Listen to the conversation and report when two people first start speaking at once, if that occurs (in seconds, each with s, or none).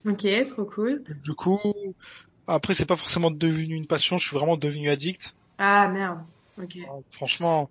none